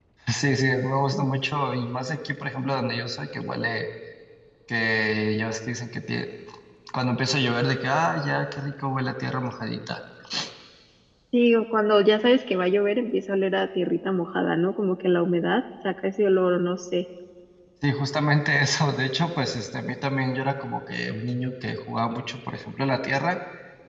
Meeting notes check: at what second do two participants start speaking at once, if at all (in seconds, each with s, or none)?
none